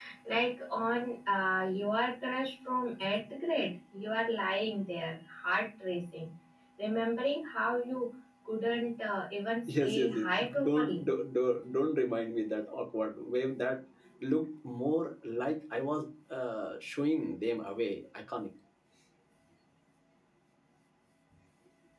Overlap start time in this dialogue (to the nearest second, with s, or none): 10 s